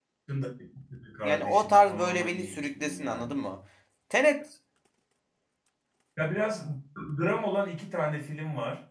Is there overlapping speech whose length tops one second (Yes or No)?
Yes